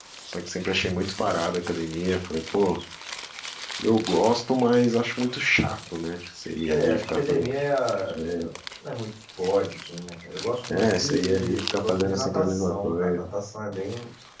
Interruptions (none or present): present